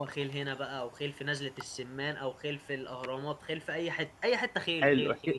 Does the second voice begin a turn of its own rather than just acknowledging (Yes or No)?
Yes